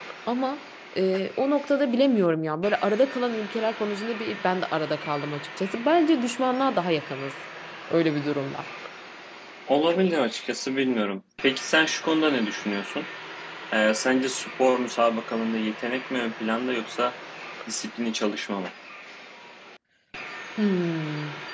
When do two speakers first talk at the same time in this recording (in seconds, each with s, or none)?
none